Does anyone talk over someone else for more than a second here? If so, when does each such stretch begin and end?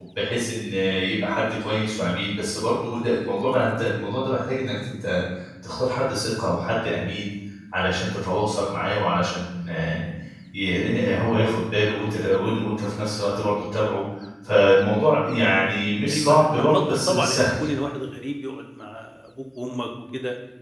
16.1-17.5

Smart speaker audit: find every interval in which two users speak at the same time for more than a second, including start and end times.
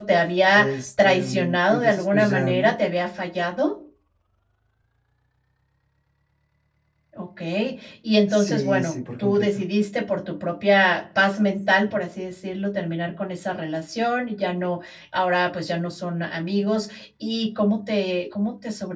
0.6-2.7, 8.3-9.6

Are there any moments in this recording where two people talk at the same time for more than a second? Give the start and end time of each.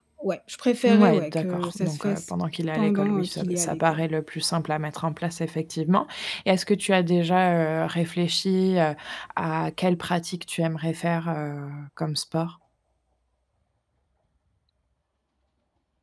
0.8-2.3, 2.8-4.0

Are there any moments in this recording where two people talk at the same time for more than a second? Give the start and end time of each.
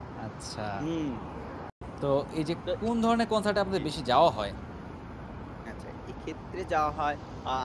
none

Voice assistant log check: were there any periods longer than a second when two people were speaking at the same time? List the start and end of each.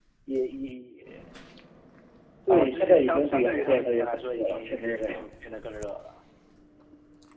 2.5-5.3

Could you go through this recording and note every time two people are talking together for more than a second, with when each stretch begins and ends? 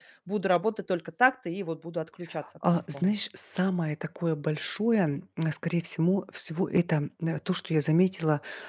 none

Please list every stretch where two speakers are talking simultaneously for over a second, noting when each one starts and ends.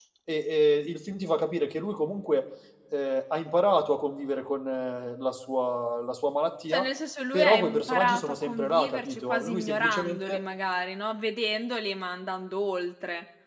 7.3-10.4

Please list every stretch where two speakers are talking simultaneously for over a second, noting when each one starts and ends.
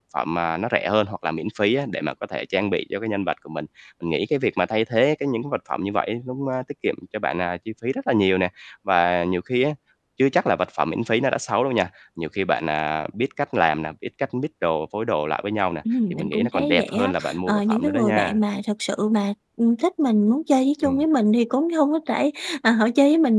16.1-18.4

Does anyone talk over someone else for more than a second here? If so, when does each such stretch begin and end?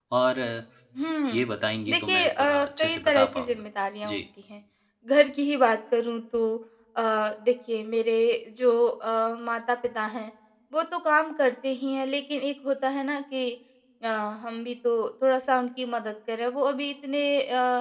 1.9-3.6

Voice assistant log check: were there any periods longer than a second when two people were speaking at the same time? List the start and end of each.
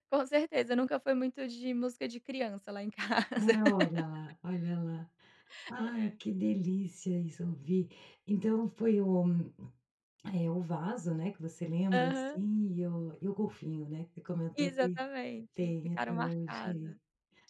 15.6-16.9

